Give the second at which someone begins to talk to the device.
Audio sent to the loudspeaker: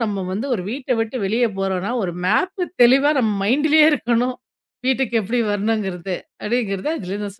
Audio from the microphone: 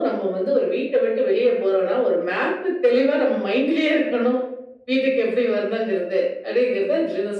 none

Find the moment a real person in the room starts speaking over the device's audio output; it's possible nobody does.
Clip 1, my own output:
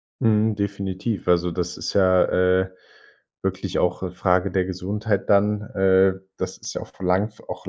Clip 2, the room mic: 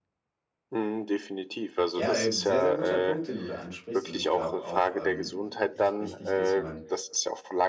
2.0 s

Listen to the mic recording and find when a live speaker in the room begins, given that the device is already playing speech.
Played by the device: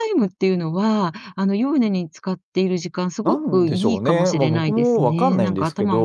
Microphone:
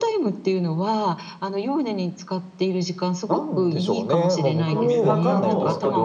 4.7 s

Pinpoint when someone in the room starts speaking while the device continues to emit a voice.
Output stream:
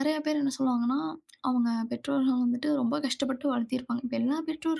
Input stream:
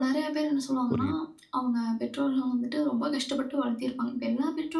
0.9 s

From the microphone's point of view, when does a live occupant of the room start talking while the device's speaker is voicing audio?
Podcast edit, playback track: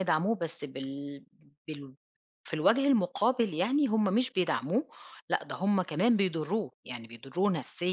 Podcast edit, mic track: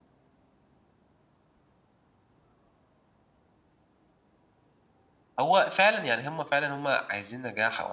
5.4 s

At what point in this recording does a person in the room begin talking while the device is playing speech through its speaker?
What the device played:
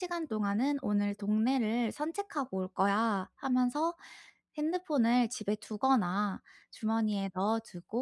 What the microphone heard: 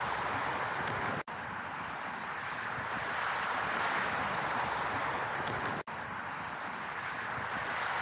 none

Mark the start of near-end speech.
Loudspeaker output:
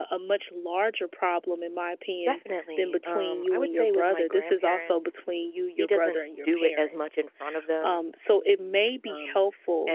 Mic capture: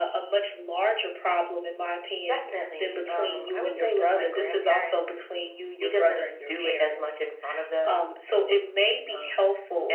none

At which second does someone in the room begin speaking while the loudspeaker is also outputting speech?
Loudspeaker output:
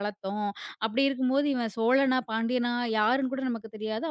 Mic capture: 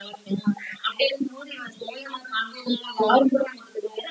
none

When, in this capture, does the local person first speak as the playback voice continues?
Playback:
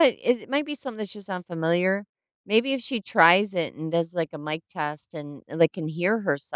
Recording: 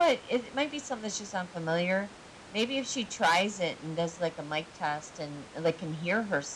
none

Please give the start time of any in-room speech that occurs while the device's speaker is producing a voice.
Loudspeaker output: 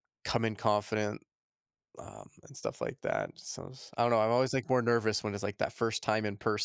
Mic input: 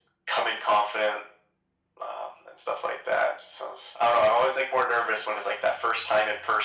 none

